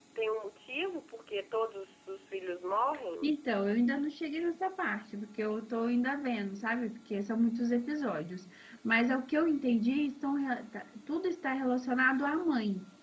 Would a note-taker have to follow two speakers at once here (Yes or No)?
No